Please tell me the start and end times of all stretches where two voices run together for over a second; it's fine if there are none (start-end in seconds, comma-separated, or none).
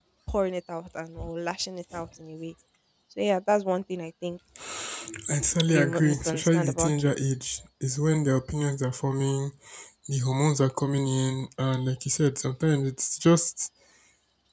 5.7-7.1